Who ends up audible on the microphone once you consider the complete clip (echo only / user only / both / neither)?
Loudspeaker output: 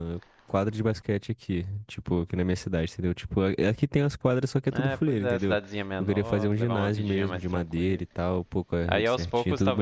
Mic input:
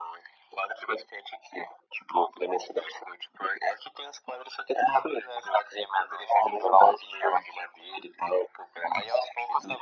echo only